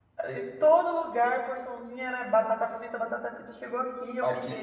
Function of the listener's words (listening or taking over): taking over